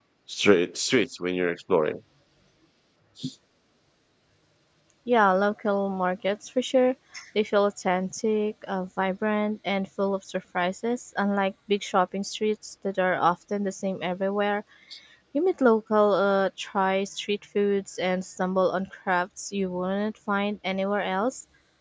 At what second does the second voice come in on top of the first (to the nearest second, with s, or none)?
none